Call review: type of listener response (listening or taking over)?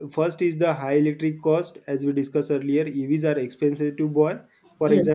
listening